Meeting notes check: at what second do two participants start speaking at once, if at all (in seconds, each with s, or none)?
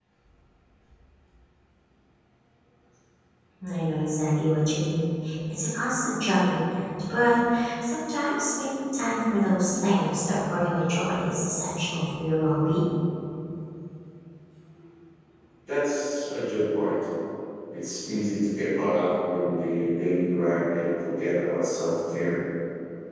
none